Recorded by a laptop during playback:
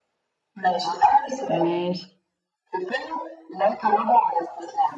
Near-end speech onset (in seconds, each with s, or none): 0.8 s